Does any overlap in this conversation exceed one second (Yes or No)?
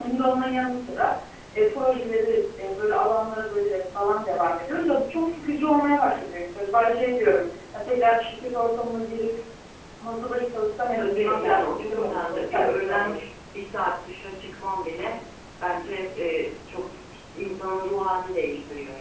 Yes